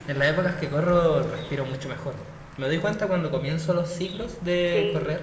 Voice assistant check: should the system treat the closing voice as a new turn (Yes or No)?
No